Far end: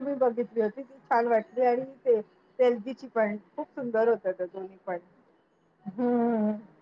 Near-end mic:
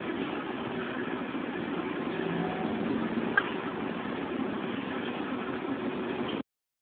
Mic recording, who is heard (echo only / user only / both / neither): neither